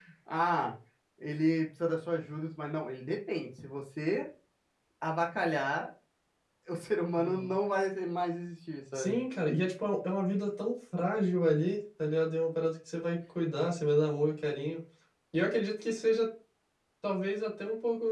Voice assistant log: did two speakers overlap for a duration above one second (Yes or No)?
No